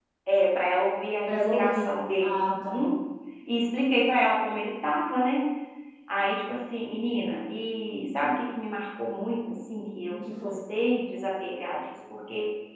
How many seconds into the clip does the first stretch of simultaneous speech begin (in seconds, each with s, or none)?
1.2 s